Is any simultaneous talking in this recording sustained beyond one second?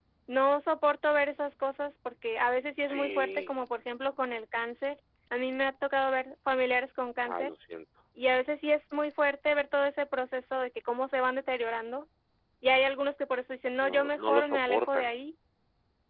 Yes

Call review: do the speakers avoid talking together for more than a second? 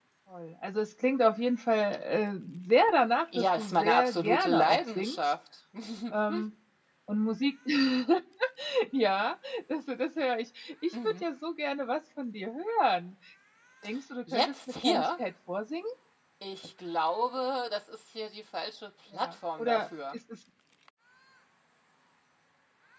No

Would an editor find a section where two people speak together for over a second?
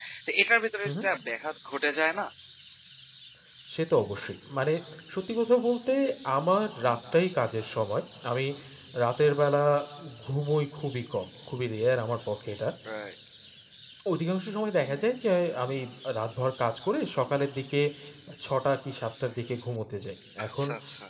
No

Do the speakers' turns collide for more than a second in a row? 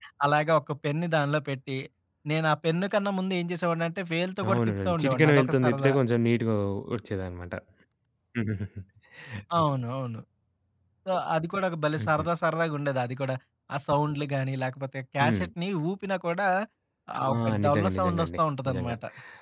Yes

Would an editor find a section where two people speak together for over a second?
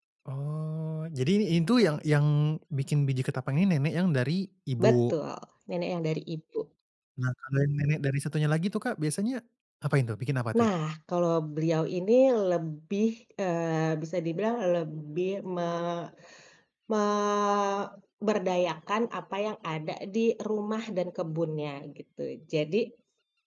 No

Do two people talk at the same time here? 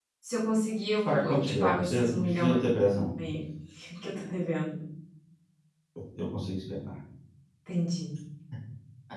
Yes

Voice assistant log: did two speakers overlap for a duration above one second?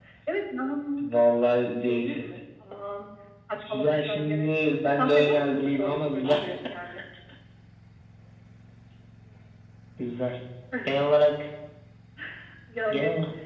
Yes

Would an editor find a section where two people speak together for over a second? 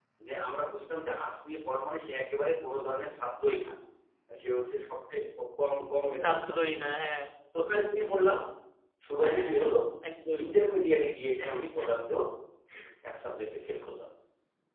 No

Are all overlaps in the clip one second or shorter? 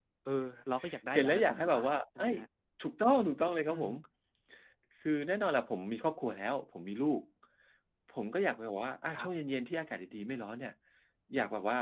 No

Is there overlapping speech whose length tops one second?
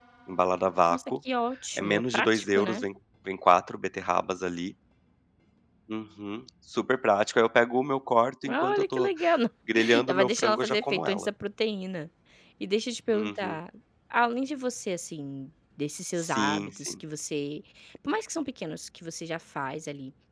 Yes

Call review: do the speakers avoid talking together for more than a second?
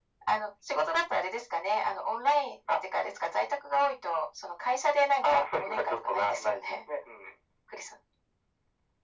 No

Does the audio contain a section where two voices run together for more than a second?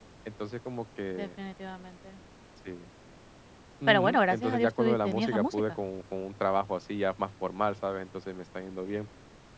Yes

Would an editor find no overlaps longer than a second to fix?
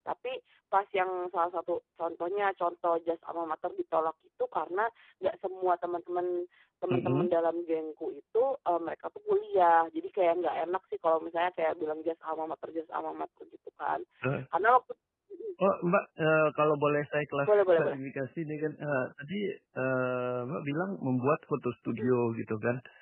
Yes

